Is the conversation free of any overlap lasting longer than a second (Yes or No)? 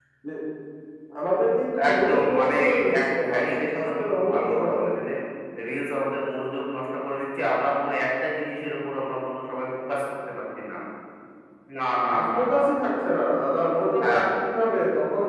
No